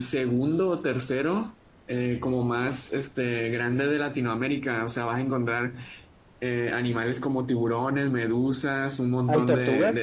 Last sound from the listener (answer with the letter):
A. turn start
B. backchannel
B